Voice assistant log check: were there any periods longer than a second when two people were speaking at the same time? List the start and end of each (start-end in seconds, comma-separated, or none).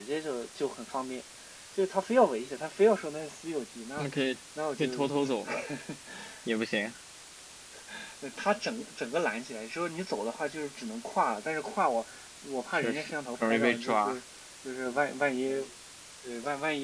12.7-14.2